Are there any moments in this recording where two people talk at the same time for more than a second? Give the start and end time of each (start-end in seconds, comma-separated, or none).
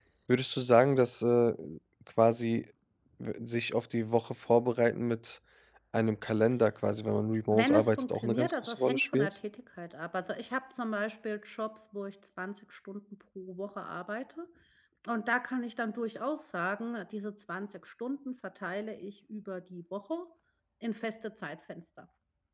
7.5-9.3